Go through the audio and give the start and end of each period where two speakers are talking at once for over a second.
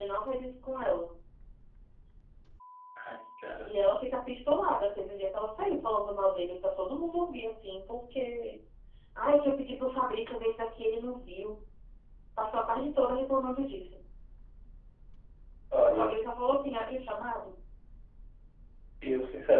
none

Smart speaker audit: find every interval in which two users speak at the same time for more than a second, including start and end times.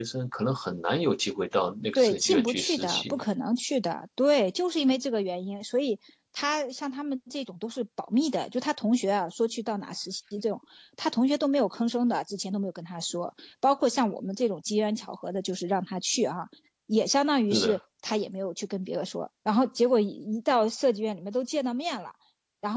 2.0-3.2

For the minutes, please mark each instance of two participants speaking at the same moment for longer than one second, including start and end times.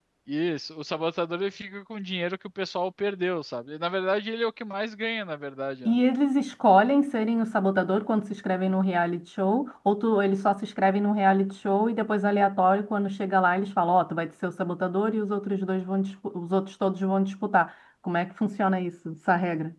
none

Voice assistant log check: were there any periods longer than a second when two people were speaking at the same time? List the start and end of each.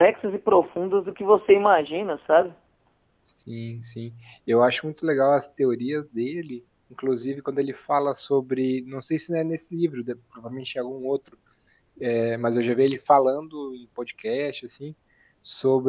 none

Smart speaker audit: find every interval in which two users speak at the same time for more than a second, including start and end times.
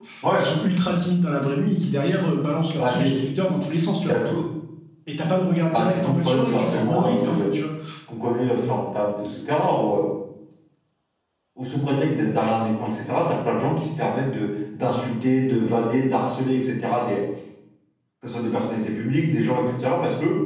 5.7-7.5

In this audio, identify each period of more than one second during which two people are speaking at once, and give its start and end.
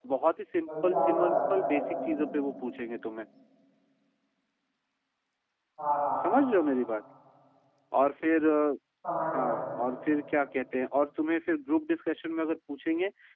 0.7-2.1

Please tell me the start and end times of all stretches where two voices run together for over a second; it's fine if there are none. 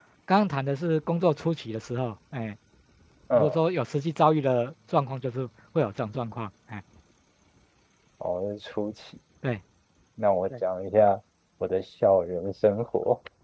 none

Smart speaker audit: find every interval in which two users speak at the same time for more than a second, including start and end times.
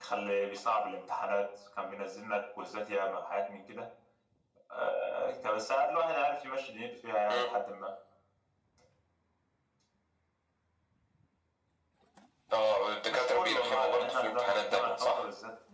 13.1-15.2

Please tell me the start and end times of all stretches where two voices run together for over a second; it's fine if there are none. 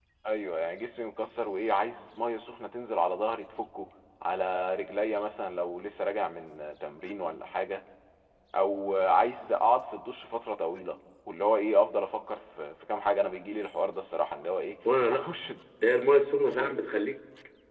none

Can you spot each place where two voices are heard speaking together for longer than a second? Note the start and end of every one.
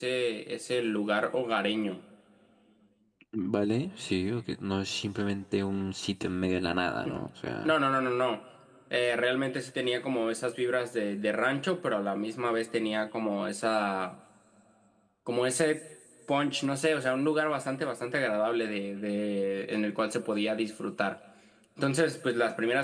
none

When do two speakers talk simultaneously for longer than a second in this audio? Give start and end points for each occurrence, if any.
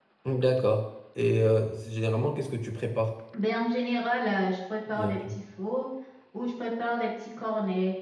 none

